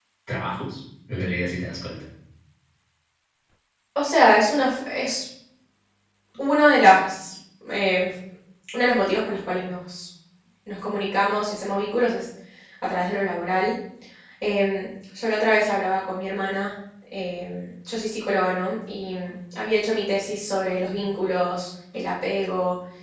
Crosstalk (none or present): none